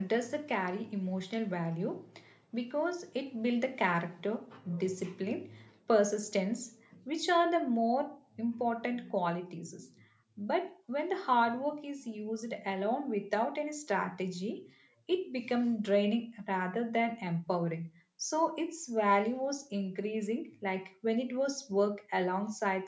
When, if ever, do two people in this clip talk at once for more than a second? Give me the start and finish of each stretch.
none

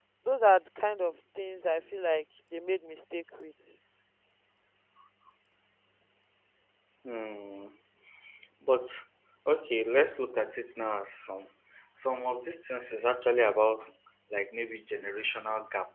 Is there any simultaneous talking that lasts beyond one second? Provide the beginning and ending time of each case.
none

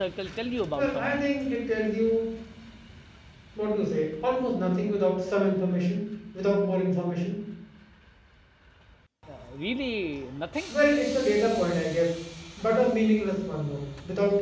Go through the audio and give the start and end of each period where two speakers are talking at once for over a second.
none

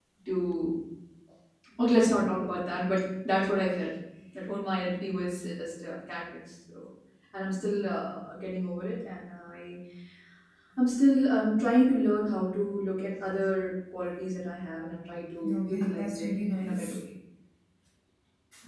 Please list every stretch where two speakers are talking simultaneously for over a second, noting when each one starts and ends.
15.5-17.0

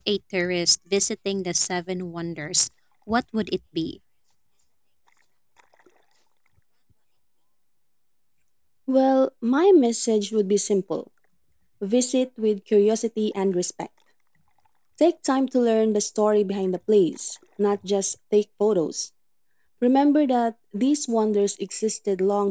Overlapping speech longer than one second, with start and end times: none

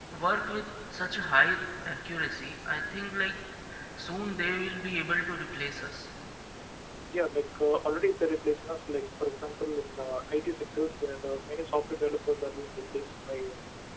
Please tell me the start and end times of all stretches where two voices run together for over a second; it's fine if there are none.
none

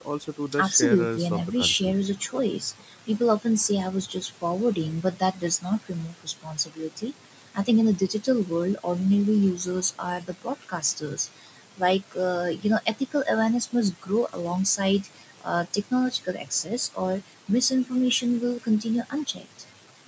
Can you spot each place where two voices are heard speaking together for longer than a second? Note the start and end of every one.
0.6-1.9

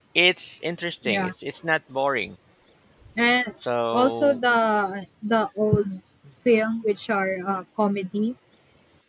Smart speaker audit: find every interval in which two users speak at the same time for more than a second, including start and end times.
none

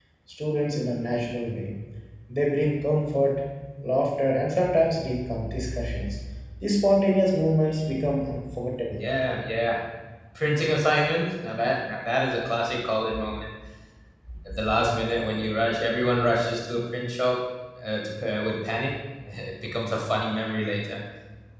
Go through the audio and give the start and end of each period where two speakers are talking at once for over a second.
none

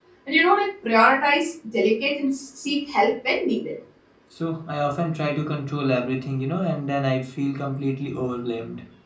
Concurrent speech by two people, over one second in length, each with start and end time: none

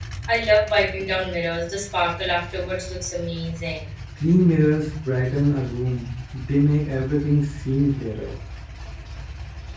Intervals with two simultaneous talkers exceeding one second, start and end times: none

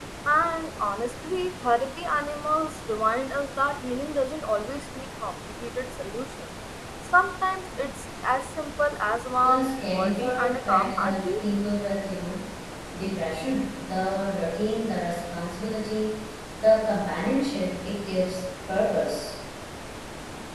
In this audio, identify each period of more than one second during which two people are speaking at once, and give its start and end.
9.4-11.4

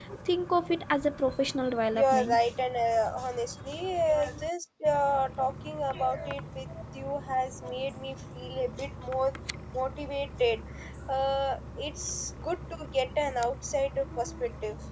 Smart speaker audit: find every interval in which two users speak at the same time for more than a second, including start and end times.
none

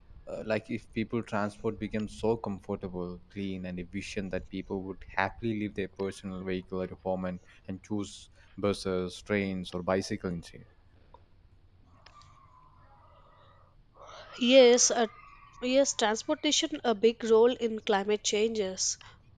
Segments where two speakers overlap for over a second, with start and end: none

